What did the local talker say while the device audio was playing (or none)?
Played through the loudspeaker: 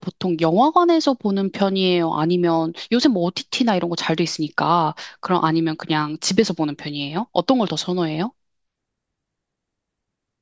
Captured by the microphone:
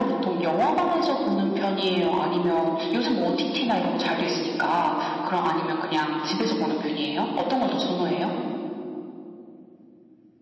none